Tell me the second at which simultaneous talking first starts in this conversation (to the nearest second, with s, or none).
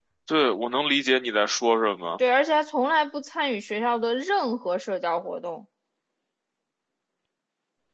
none